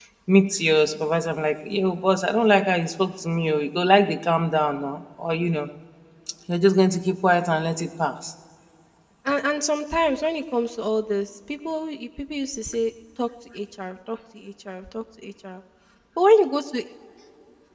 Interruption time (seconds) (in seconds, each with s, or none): none